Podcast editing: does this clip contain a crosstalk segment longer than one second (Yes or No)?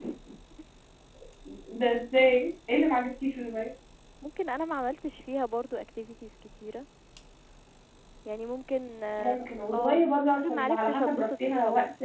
Yes